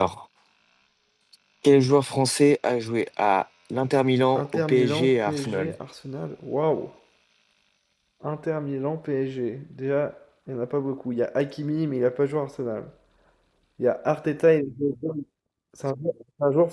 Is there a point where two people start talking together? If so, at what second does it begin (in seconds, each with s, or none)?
4.4 s